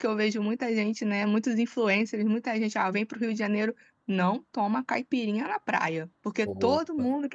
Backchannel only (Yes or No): Yes